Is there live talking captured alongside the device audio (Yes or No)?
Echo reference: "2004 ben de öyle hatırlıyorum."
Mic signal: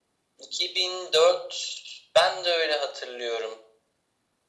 No